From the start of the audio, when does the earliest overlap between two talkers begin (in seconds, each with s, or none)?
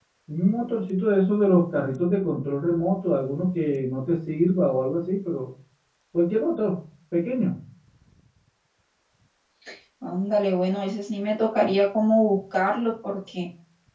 none